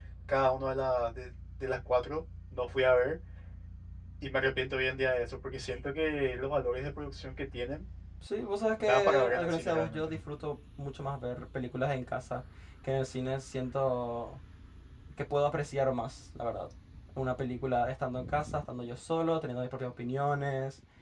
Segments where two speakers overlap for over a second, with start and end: 8.8-10.1

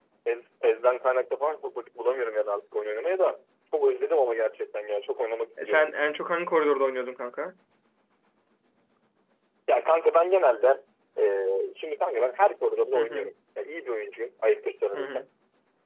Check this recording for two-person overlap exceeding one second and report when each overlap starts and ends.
none

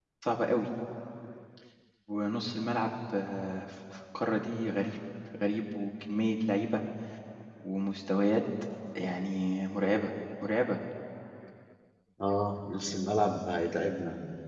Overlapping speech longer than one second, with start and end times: none

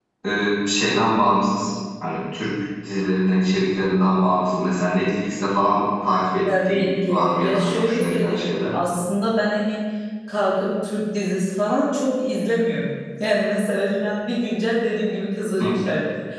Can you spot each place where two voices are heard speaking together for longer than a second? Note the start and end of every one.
6.5-8.8

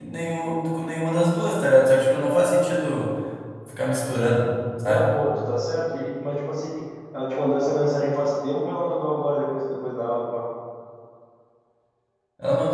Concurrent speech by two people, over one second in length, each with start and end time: none

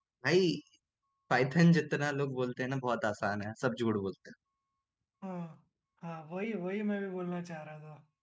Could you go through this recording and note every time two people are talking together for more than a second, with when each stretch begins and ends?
none

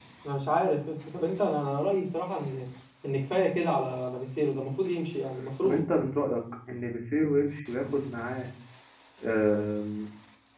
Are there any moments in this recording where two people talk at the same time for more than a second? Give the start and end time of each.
none

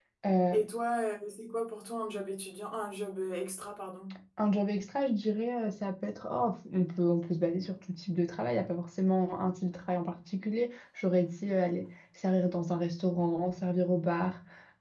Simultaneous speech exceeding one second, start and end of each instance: none

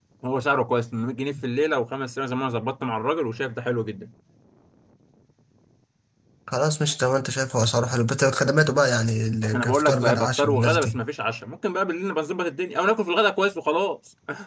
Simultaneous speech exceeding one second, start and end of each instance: 9.5-11.0

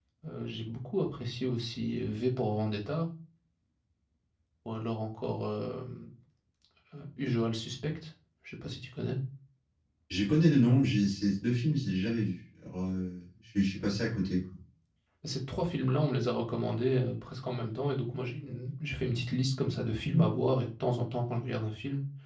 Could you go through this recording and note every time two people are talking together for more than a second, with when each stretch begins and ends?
none

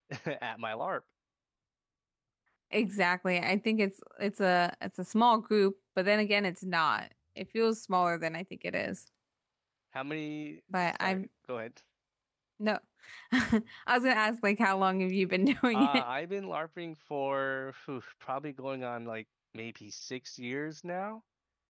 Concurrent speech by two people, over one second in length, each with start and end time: none

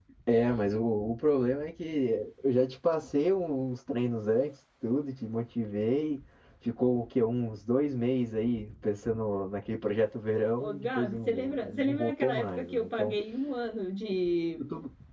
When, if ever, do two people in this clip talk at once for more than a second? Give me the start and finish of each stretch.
10.3-13.2

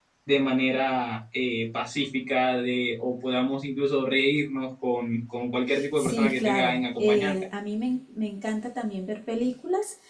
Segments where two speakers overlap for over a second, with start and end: 5.7-7.3

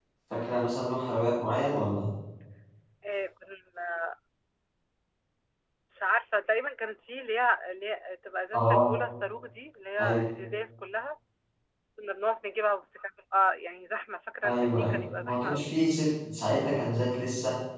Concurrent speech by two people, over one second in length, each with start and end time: 14.4-15.7

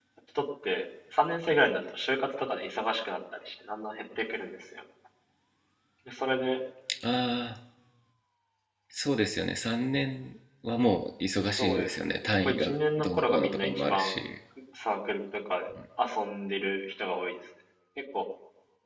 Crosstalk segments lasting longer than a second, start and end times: 11.6-14.1

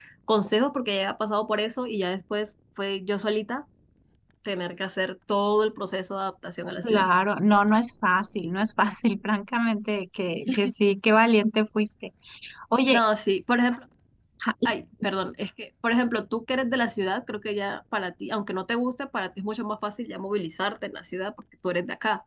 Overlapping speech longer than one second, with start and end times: none

